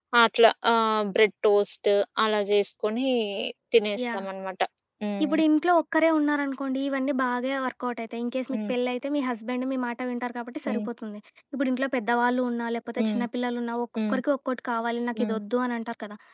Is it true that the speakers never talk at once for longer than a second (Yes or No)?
Yes